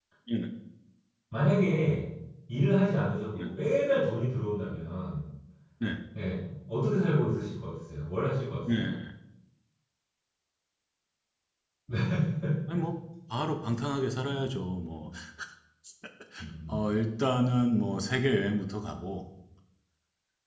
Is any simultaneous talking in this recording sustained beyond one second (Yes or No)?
No